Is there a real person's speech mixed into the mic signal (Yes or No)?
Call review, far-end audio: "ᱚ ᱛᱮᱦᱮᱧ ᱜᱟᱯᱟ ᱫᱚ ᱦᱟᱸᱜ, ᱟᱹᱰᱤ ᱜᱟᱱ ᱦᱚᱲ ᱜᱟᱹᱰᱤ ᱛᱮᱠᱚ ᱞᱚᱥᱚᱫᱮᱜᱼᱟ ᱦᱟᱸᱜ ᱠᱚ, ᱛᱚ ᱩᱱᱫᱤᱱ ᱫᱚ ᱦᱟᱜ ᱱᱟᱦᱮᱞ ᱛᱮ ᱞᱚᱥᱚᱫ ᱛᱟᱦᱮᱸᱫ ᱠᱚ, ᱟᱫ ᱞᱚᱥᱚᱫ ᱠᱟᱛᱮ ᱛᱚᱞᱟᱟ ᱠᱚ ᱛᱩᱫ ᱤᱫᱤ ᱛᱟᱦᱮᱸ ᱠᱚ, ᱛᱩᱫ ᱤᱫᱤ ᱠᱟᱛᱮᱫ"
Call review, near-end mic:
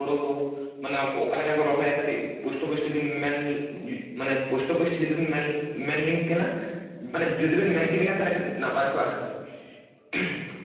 Yes